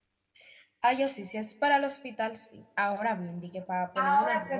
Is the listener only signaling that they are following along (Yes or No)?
No